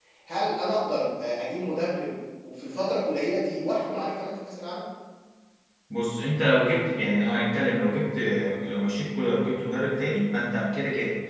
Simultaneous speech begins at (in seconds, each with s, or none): none